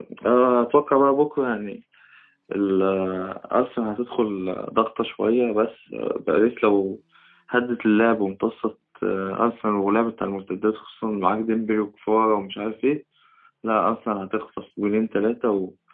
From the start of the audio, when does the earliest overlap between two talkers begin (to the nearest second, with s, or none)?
none